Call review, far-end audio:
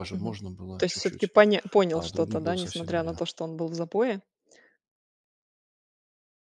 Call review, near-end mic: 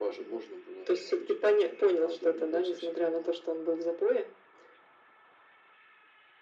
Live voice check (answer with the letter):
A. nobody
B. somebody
A